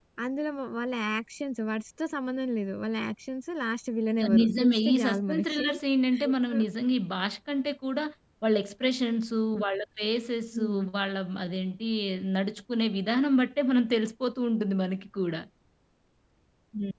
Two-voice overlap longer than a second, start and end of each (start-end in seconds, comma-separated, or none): 4.4-5.7